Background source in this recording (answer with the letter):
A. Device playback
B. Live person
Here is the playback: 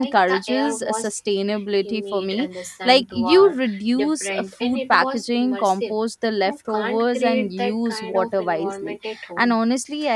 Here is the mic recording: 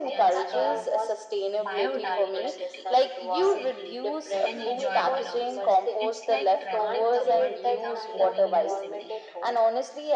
B